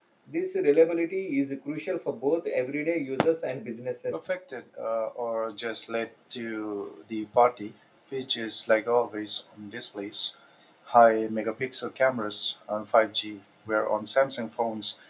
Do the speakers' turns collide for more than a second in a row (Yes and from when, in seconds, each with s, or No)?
No